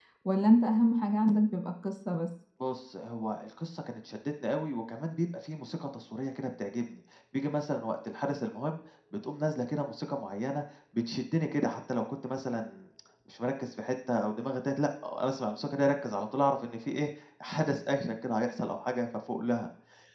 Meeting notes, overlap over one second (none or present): none